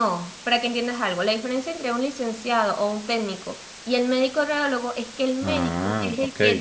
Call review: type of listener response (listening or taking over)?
listening